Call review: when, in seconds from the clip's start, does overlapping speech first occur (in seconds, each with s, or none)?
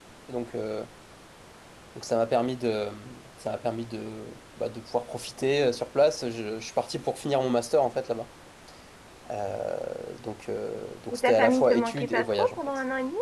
11.1 s